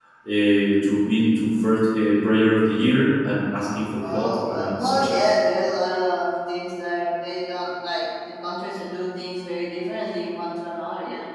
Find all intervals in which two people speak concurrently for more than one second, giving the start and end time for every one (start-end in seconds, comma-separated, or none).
4.0-5.4